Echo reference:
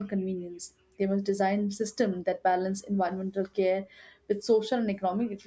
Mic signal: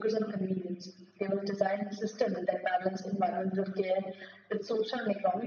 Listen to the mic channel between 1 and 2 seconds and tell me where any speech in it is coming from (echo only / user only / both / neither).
echo only